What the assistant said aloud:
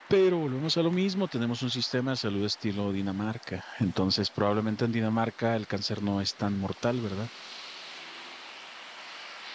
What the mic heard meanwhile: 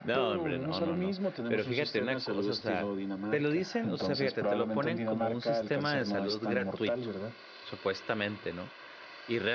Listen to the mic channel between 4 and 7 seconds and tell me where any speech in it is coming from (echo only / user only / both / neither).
both